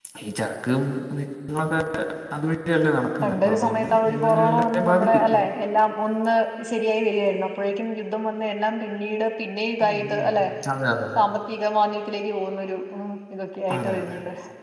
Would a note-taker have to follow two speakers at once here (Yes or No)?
Yes